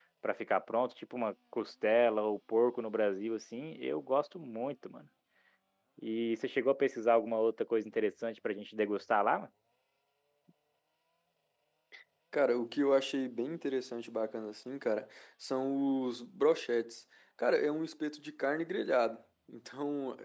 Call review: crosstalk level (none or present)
none